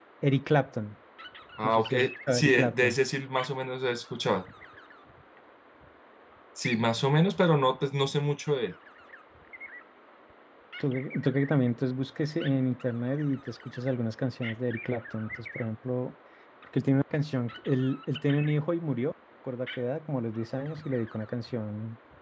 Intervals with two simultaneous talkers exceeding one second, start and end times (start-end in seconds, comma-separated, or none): 1.6-3.0